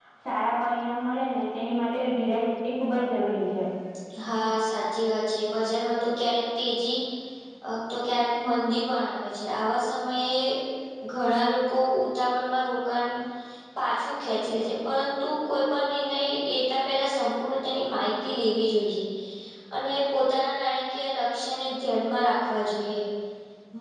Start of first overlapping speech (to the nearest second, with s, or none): none